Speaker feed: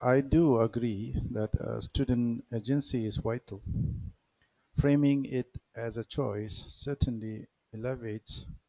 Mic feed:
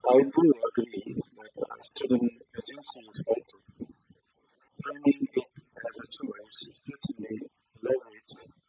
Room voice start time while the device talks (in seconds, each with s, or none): none